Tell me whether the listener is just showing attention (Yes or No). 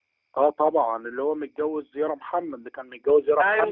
No